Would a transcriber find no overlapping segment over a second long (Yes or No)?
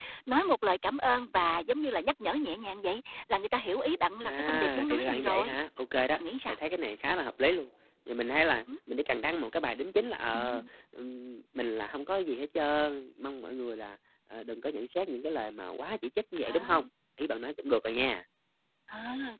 No